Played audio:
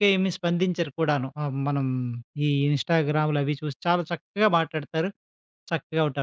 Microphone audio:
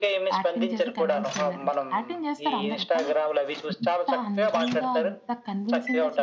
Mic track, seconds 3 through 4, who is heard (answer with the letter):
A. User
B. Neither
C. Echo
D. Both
D